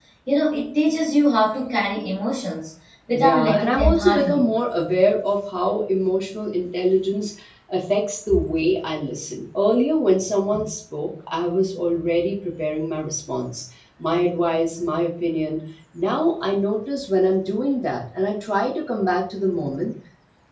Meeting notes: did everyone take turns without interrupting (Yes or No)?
No